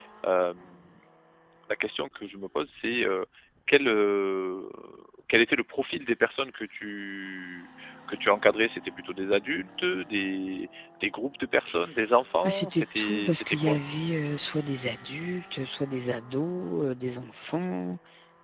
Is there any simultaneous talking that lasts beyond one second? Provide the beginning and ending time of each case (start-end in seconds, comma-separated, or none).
12.4-13.8